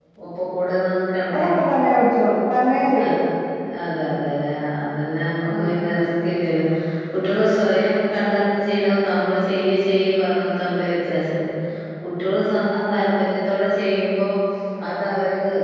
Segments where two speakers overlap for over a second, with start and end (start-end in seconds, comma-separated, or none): none